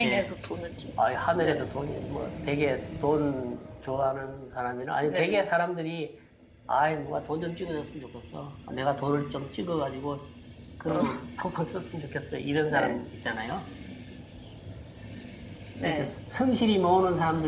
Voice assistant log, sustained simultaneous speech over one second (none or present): none